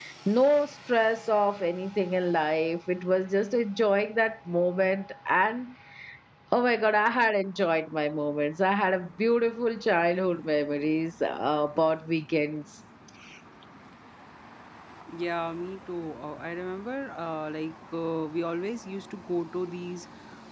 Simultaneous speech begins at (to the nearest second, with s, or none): none